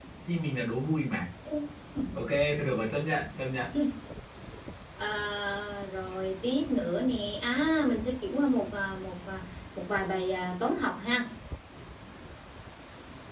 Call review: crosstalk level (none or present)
none